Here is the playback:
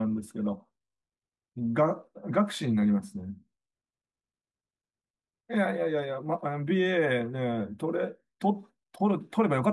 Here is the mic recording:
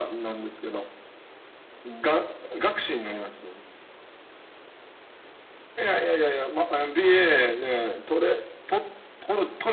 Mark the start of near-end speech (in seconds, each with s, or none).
none